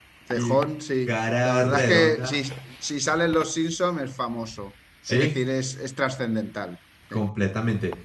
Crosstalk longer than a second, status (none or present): present